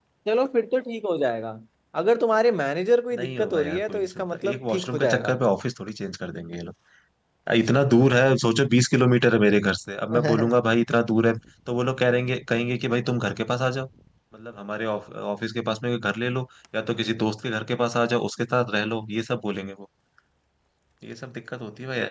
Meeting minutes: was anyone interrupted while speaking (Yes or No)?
Yes